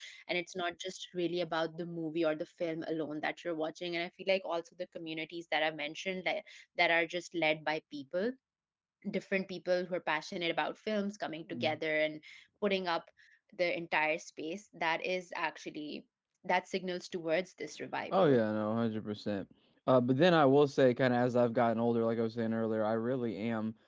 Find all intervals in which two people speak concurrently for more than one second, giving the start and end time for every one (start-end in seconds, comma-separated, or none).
none